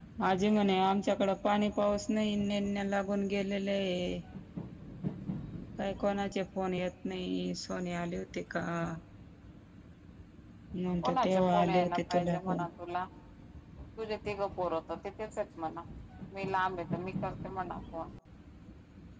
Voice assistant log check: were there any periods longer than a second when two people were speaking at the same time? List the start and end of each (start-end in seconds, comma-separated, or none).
11.0-12.7